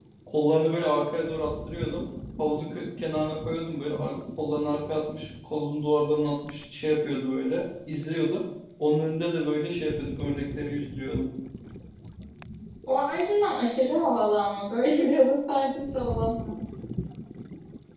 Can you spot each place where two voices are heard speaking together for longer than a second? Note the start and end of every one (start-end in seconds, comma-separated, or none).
none